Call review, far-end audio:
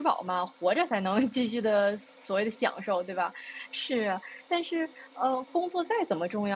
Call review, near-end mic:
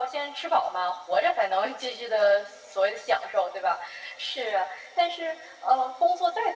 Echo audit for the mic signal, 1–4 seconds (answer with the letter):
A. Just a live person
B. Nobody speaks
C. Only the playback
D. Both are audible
C